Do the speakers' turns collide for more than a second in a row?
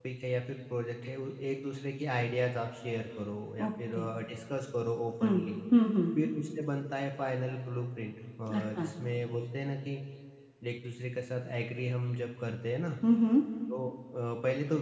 No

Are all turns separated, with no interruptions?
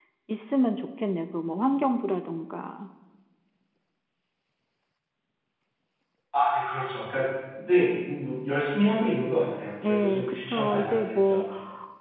No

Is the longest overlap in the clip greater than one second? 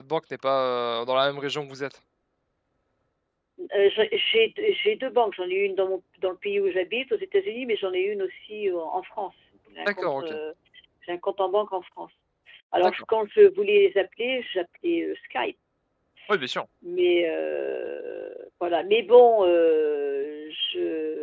No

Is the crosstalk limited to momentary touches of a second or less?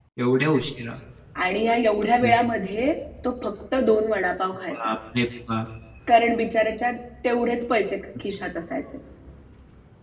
Yes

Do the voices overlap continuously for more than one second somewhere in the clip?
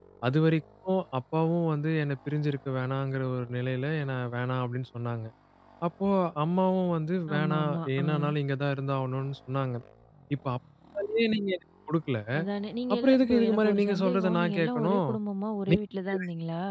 Yes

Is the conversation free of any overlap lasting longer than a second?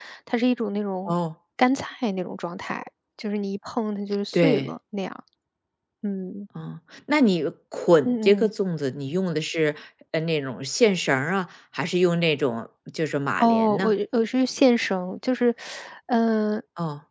Yes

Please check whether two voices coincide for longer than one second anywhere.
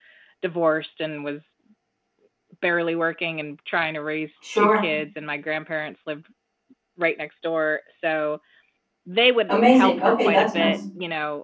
Yes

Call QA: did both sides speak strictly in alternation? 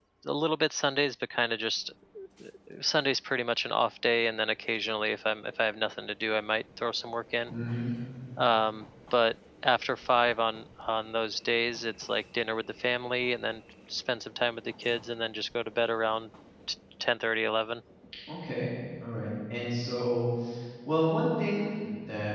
Yes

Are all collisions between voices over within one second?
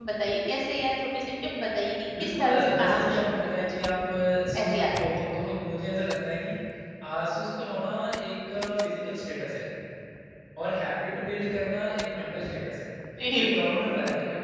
No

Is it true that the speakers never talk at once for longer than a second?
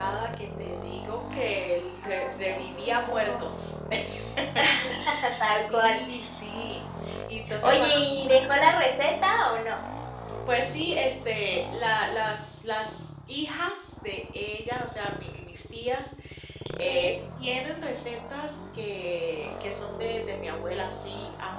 No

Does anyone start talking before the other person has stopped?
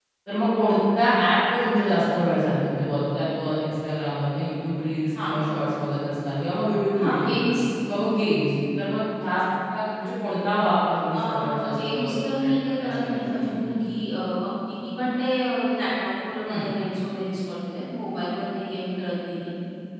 Yes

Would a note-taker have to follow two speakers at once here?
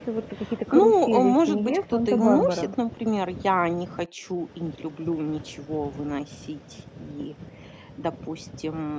Yes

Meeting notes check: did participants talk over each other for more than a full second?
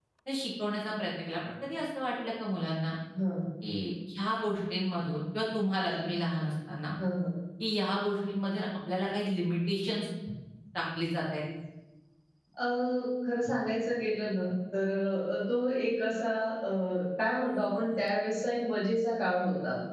No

